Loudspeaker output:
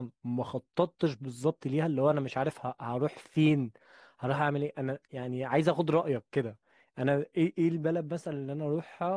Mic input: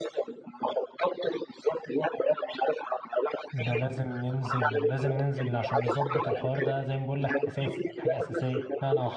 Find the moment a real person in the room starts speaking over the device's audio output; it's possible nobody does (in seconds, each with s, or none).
3.5 s